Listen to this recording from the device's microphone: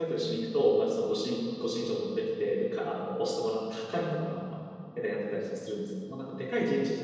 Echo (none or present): none